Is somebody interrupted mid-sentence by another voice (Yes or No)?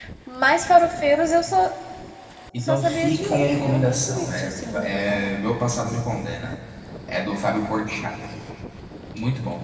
Yes